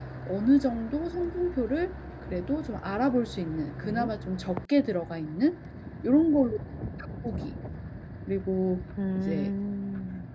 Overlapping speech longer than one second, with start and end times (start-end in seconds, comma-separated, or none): none